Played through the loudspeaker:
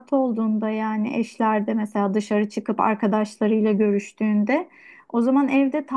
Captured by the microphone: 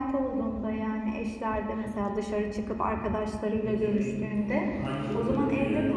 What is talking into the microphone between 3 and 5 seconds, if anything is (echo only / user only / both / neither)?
both